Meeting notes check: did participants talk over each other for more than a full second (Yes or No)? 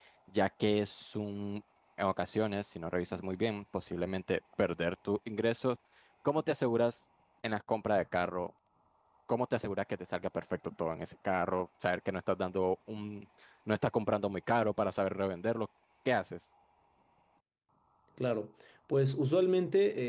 No